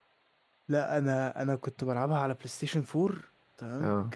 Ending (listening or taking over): listening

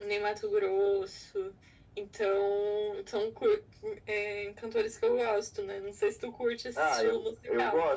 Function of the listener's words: taking over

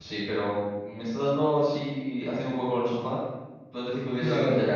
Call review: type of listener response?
taking over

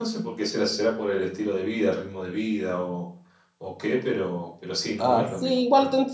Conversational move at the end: taking over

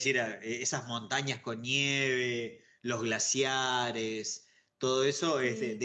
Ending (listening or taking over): listening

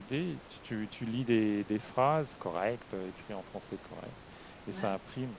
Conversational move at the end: listening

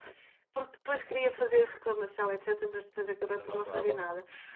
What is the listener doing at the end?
listening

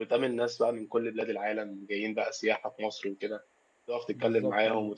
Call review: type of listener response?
listening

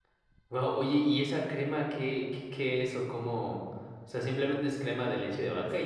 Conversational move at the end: taking over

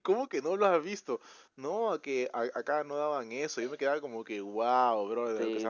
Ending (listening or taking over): taking over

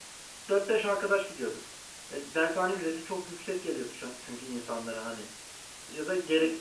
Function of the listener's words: listening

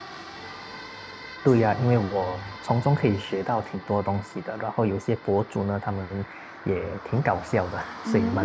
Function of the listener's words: taking over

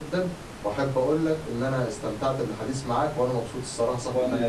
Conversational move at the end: taking over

